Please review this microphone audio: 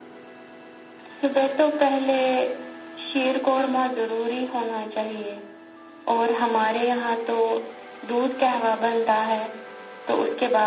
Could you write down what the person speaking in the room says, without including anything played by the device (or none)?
none